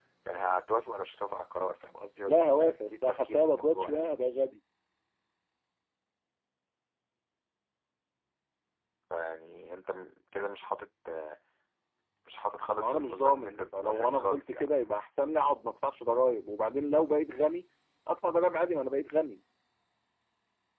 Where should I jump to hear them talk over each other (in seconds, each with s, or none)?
2.3 s